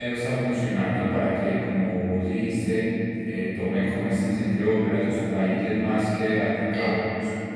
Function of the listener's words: listening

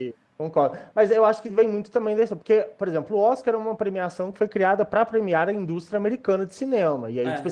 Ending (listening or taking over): listening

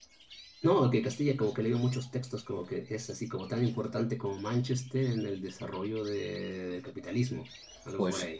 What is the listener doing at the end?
taking over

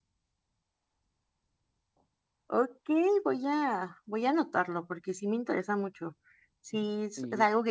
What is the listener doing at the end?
listening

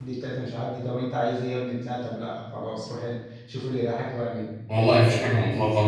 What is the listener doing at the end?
taking over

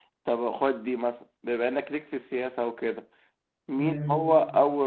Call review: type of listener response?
listening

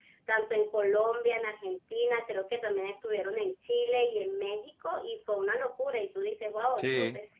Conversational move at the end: listening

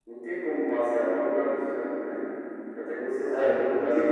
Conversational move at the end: taking over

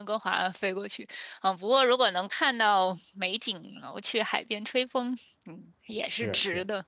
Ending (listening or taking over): taking over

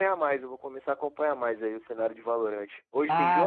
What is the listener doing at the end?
taking over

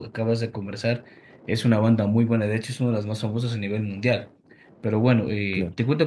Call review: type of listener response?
listening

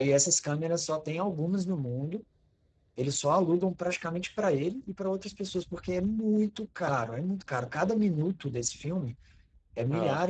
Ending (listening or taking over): listening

